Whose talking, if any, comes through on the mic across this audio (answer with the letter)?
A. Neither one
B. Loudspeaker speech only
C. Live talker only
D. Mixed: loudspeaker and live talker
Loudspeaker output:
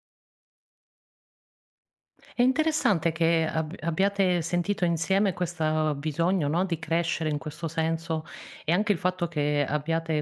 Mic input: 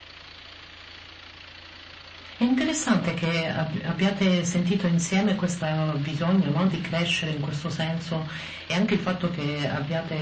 B